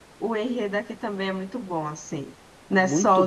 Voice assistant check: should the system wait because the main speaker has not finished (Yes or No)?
No